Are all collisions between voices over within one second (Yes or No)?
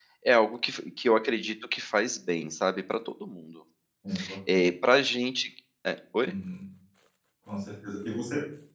Yes